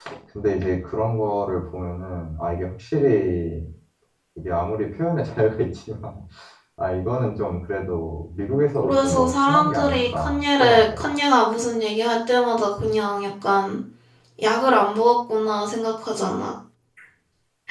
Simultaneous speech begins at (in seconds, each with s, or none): 8.8 s